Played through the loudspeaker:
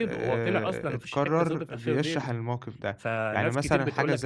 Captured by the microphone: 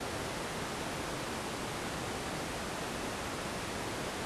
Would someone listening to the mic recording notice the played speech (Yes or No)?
No